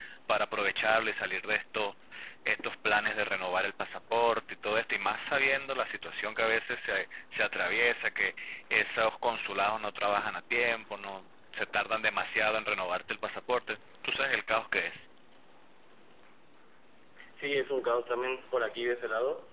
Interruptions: none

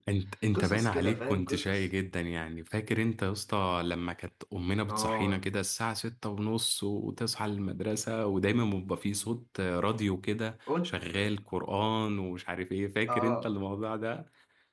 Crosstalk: present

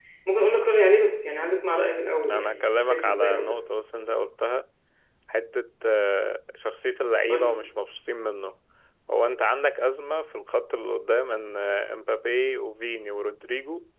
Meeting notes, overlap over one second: present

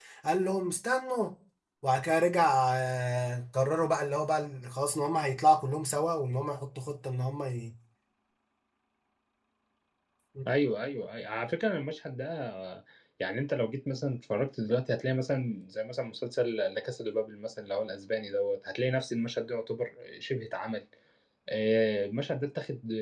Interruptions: none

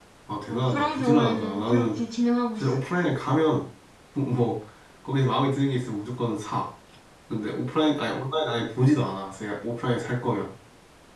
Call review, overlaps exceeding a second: present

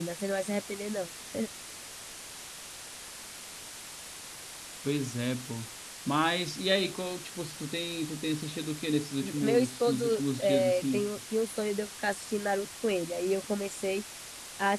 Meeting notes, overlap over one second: present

